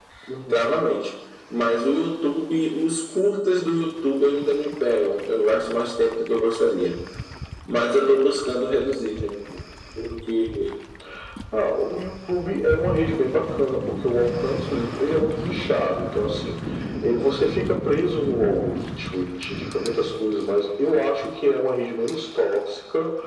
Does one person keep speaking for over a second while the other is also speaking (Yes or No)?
No